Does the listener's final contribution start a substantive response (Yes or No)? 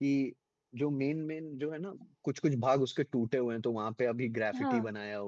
No